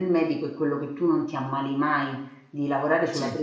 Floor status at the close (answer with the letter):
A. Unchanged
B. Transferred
A